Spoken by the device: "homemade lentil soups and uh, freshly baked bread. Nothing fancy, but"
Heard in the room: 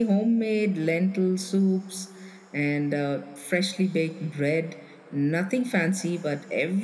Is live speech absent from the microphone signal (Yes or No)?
Yes